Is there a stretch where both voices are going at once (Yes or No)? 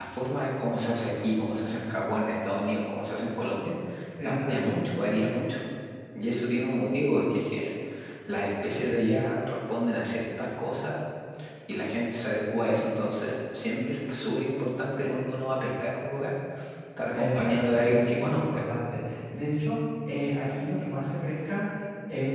Yes